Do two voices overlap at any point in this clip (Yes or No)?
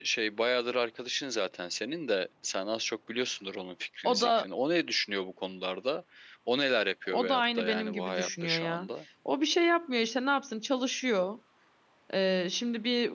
Yes